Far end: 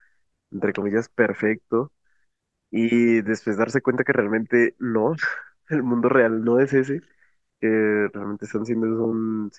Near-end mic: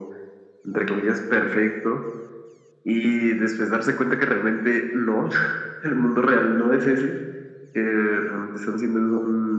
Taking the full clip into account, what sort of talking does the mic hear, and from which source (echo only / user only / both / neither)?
echo only